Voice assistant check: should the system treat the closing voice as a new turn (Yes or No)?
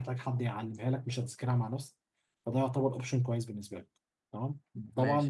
No